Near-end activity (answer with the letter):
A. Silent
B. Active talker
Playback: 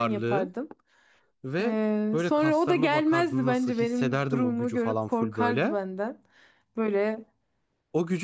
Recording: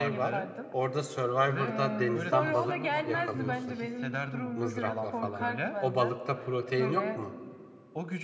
B